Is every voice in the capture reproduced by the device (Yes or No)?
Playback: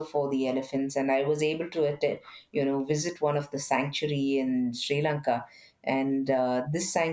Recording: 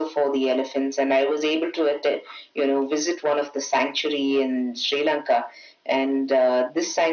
Yes